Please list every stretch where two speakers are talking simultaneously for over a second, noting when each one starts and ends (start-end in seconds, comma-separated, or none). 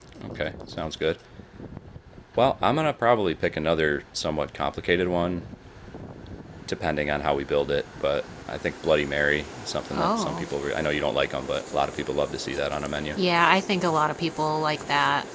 none